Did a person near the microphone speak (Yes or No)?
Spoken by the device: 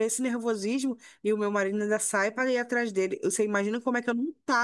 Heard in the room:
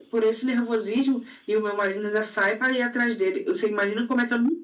No